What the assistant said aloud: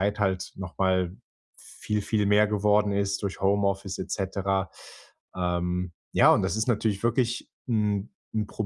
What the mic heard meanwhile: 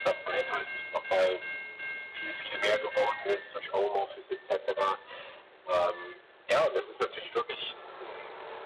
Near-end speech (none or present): none